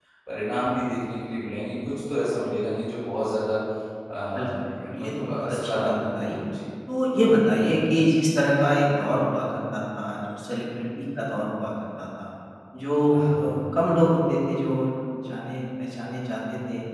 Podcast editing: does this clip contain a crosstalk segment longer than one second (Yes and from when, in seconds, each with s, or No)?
Yes, from 4.4 s